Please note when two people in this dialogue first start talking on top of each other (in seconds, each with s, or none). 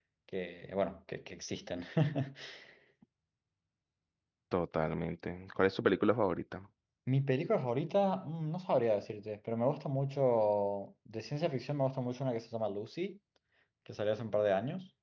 none